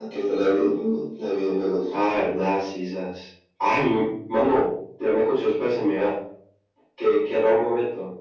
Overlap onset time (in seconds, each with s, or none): none